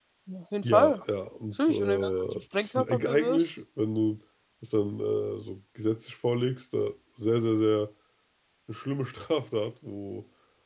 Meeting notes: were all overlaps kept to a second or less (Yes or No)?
No